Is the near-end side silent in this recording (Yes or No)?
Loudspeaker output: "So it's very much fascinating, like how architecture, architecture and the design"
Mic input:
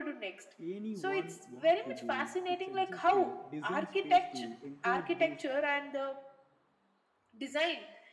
No